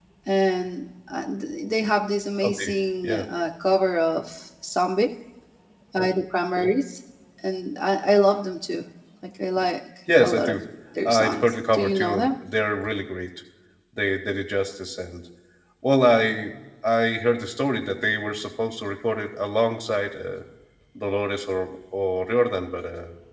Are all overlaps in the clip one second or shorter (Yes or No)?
No